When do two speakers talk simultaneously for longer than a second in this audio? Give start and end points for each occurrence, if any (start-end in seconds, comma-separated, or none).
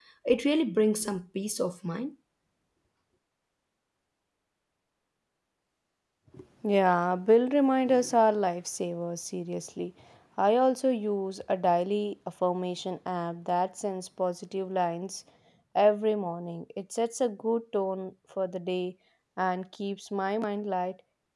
none